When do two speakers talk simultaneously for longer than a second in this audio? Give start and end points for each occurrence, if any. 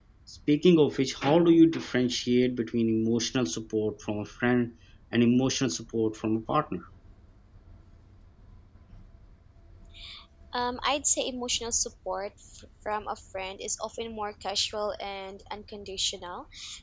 none

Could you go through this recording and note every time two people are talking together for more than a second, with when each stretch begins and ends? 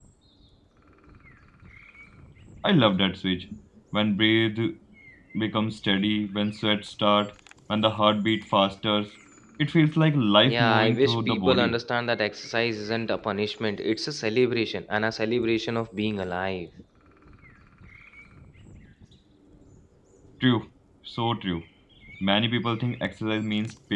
10.4-11.8

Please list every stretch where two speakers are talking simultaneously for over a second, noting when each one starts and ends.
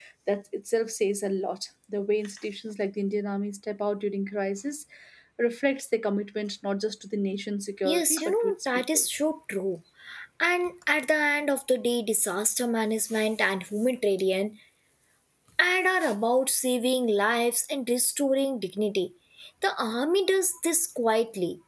7.8-9.1

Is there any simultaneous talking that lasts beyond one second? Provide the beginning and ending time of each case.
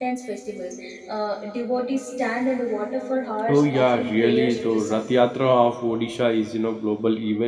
3.5-5.1

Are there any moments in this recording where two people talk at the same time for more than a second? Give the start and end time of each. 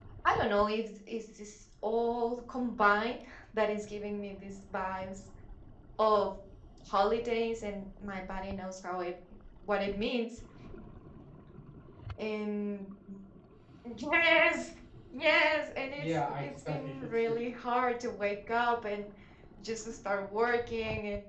15.9-17.4

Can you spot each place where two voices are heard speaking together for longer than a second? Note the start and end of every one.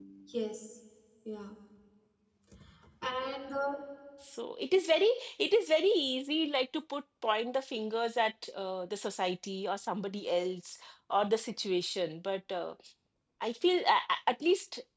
none

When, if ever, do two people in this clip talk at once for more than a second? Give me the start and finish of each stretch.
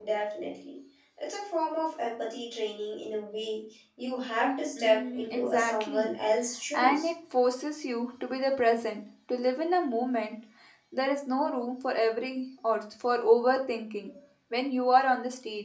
4.8-6.1

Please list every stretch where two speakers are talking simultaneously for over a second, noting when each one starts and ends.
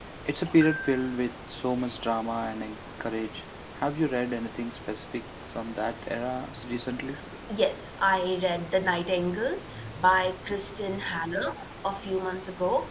none

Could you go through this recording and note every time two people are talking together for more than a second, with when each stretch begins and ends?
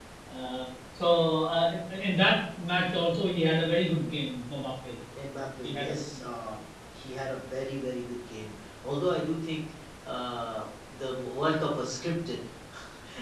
none

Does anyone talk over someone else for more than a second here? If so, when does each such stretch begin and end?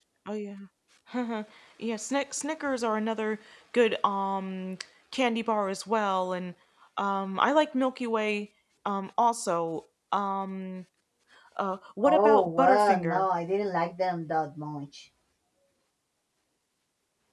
12.0-13.2

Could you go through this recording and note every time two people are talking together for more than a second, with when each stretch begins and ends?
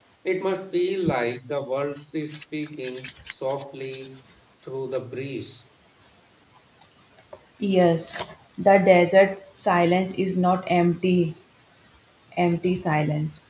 none

